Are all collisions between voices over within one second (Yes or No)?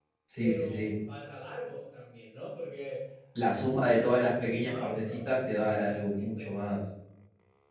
No